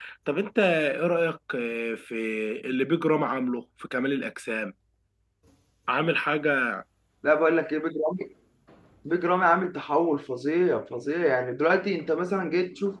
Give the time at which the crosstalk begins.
none

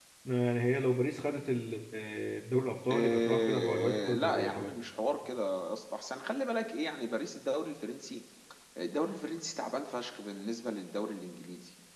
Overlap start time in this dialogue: 2.9 s

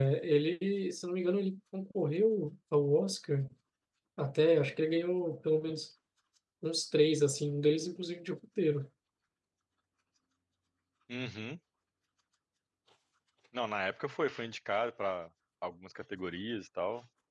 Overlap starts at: none

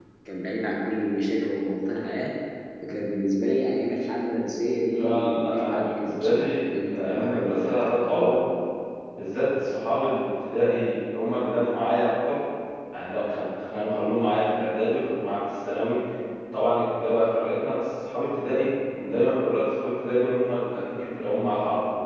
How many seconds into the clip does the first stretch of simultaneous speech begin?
5.0 s

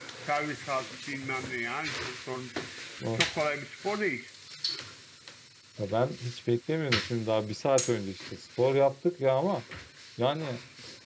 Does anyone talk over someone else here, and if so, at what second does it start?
none

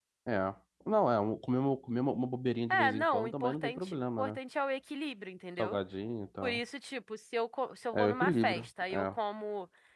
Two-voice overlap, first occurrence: 2.7 s

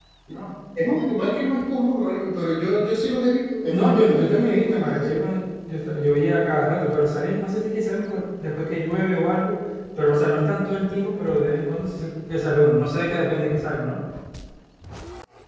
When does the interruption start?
3.7 s

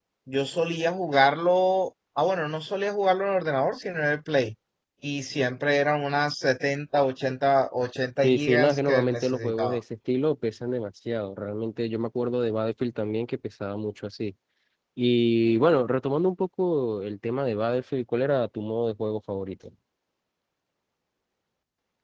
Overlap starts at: 8.2 s

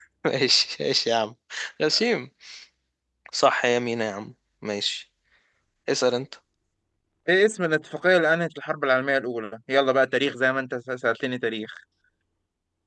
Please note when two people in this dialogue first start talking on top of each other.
none

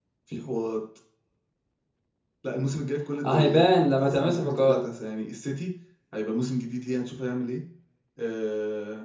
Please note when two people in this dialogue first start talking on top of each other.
3.2 s

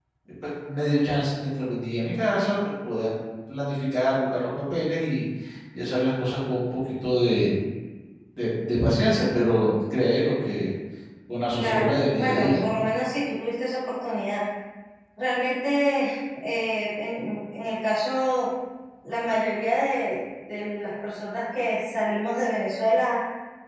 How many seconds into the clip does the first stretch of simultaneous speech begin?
11.6 s

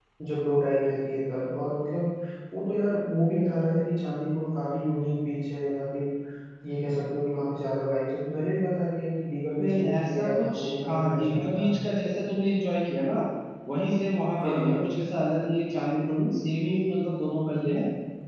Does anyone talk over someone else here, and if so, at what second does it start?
9.6 s

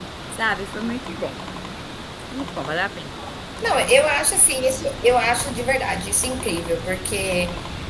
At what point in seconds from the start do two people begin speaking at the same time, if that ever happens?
none

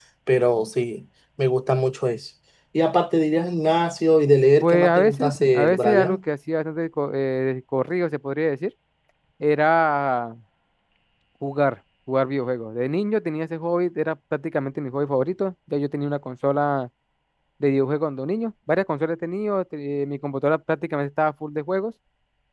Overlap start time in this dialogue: 4.6 s

